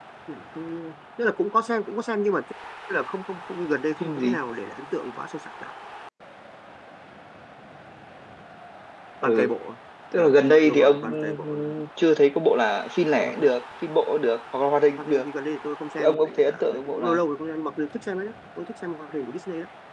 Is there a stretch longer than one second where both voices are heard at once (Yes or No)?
Yes